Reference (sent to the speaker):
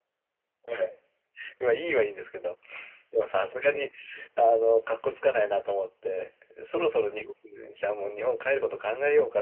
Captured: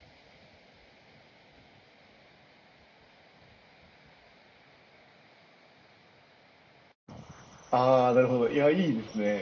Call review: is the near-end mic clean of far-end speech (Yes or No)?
Yes